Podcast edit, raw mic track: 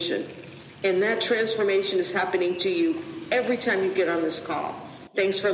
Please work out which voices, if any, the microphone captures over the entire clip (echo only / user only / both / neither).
echo only